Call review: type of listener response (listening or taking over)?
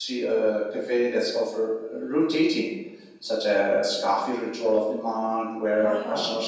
listening